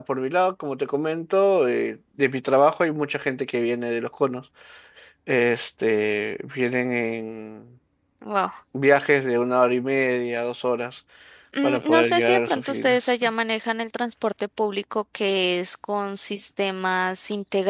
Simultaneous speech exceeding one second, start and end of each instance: 11.6-13.1

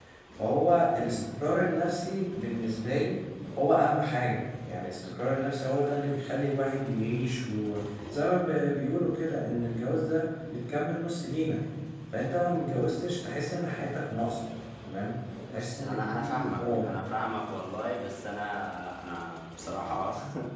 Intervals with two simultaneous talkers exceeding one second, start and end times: 15.5-16.9

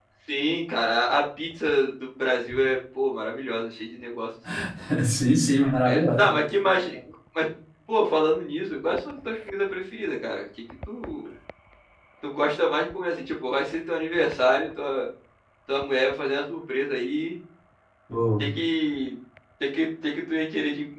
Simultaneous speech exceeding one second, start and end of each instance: none

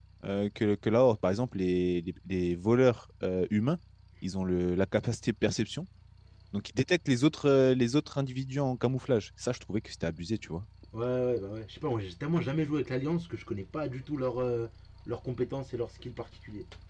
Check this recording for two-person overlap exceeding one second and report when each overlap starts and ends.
none

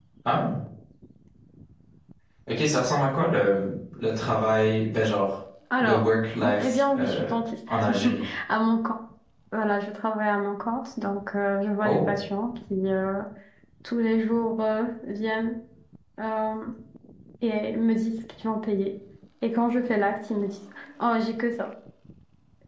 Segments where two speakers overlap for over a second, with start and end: 5.8-7.2

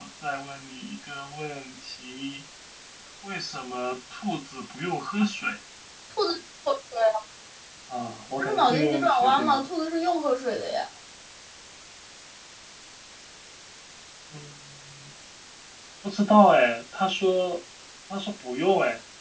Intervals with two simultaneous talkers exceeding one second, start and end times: 8.4-9.6

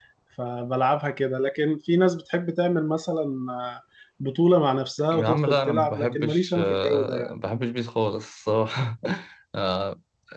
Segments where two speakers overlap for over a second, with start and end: 5.1-7.3

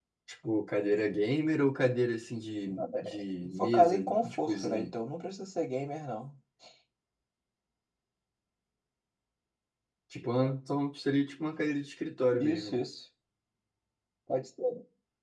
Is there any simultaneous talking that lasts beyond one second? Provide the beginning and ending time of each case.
3.6-4.9

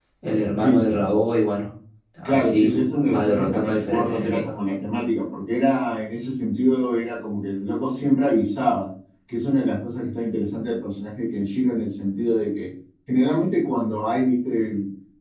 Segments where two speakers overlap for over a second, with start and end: 3.0-4.5

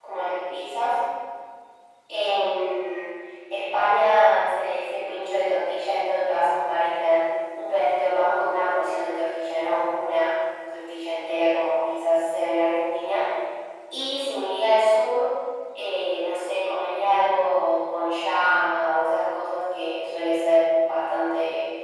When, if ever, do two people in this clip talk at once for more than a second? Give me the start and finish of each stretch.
none

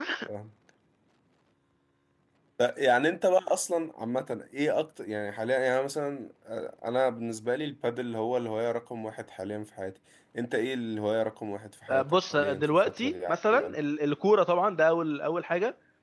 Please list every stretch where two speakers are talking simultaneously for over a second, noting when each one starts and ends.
11.9-13.8

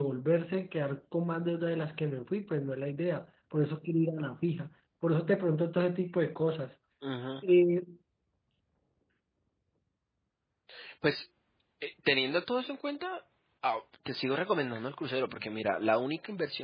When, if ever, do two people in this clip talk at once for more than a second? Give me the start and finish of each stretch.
none

